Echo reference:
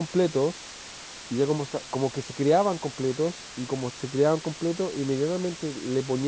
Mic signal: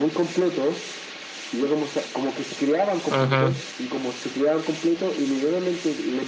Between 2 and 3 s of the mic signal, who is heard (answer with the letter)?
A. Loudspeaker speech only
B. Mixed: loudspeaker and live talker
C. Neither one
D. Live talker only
A